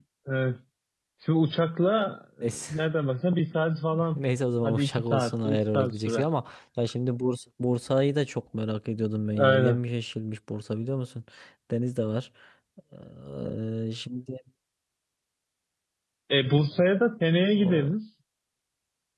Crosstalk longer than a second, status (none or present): present